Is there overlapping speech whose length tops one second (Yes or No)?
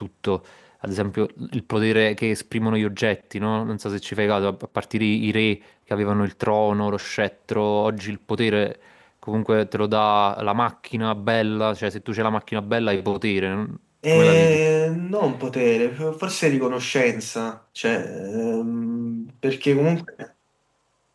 No